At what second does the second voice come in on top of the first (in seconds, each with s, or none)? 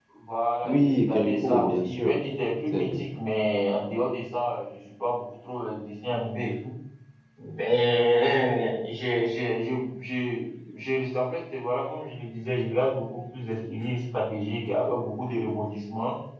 0.6 s